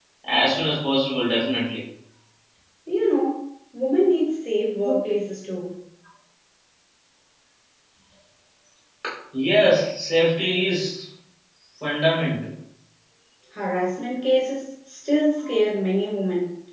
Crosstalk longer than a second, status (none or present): none